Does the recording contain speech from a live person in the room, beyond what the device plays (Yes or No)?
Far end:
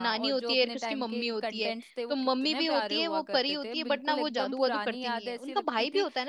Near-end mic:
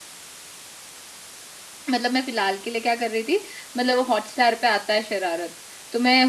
Yes